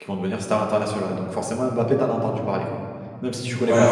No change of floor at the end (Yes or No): No